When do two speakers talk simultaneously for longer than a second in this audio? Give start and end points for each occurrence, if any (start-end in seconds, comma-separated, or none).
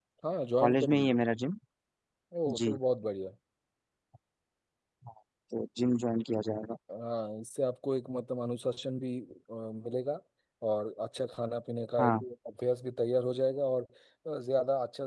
none